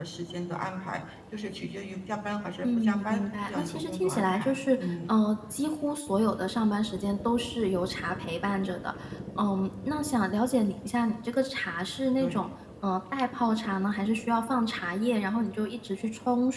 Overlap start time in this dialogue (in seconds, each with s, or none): 2.6 s